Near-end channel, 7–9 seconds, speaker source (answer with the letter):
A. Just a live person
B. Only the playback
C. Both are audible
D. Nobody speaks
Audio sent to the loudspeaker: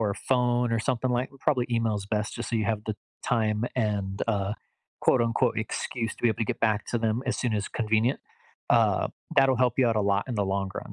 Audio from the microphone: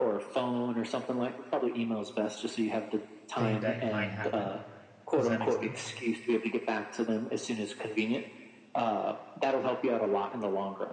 B